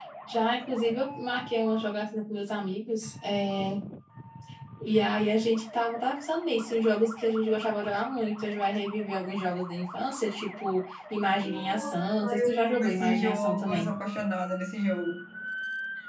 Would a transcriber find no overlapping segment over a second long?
No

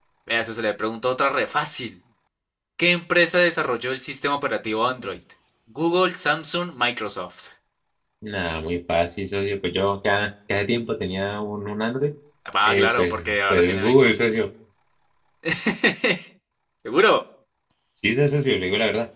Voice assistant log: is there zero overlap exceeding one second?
No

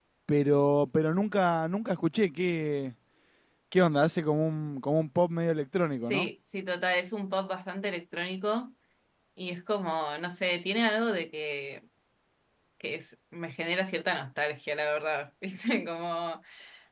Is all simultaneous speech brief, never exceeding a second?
Yes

